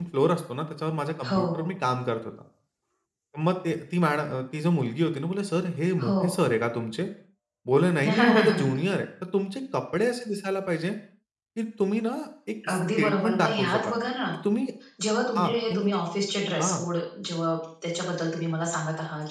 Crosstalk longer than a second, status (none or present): present